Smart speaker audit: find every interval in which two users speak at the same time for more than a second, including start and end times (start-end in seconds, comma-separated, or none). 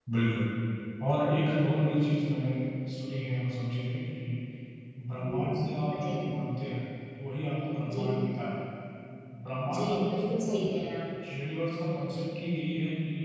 9.7-10.9